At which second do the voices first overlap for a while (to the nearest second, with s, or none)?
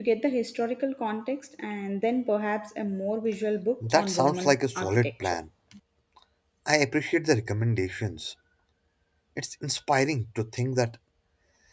4 s